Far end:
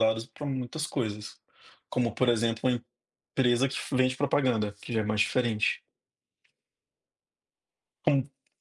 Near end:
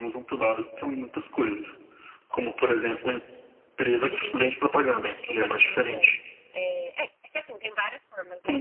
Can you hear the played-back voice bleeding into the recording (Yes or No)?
Yes